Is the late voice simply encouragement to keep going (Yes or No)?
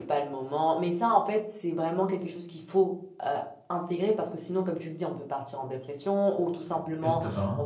Yes